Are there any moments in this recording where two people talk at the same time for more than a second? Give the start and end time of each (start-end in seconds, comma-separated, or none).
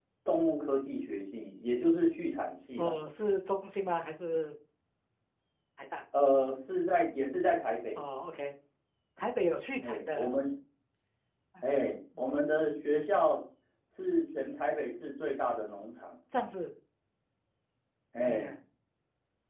none